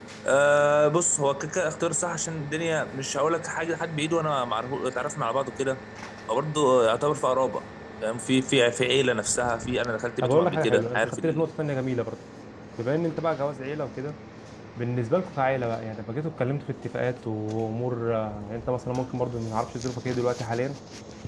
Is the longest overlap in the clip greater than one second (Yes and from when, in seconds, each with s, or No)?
Yes, from 10.2 s